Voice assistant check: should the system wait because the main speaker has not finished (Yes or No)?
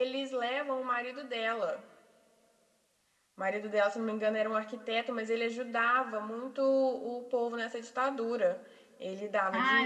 No